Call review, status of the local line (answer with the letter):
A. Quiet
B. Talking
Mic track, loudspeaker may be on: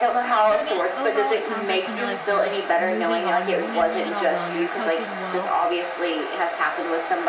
B